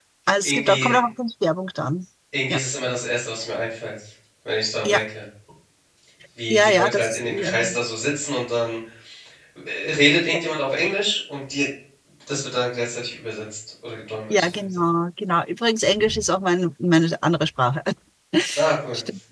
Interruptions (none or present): present